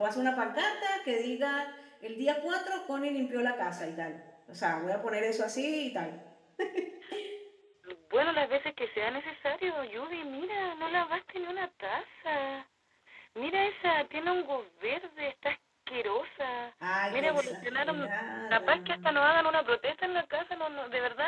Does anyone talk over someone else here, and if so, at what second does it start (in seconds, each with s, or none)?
16.8 s